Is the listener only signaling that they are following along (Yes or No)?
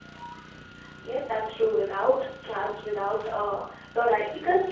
Yes